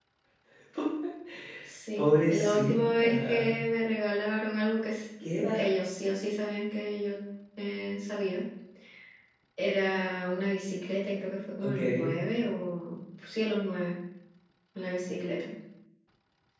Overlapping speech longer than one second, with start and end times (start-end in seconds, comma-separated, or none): 2.0-3.6